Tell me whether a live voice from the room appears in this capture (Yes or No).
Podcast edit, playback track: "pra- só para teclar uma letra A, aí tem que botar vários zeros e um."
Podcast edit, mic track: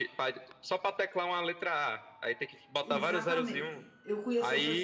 Yes